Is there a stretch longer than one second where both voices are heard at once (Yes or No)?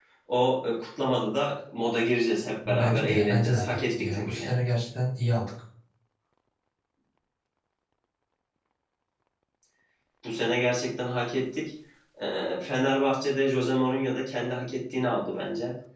Yes